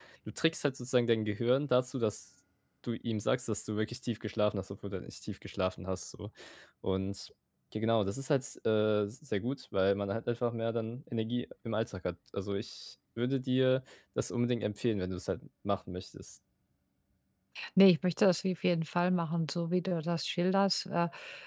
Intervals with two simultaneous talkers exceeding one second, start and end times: none

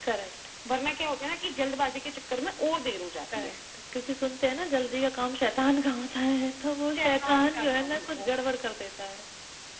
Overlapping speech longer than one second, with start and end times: 7.0-8.5

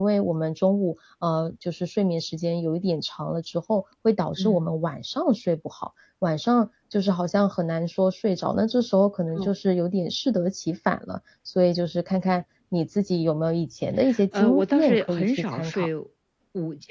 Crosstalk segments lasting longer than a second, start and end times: 14.3-15.9

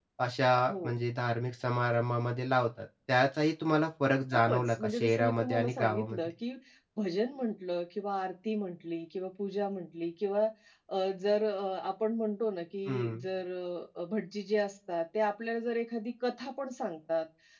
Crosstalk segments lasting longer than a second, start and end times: 4.3-6.3

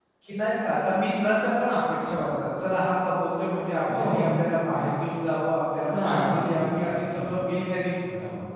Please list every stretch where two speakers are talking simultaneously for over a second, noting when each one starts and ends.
6.0-7.4

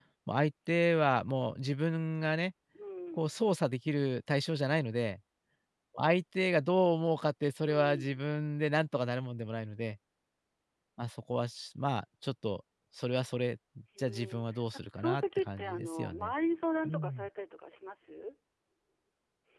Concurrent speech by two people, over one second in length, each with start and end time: 15.0-16.3

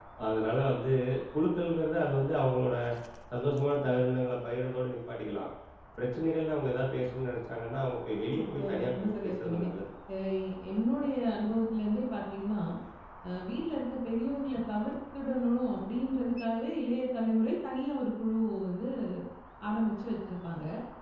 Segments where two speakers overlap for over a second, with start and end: 8.4-9.7

